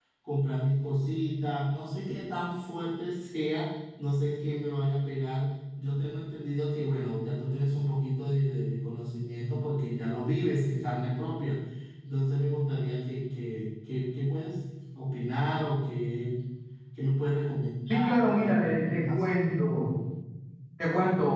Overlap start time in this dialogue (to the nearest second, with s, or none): 18 s